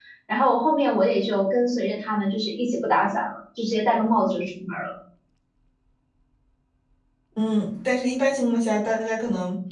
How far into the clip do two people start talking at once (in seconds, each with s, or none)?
none